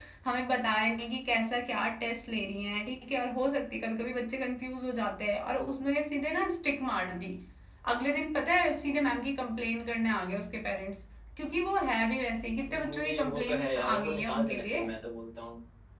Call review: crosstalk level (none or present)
present